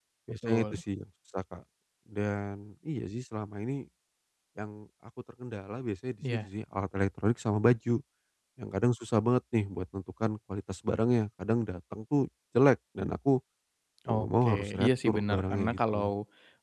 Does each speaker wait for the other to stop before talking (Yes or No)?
No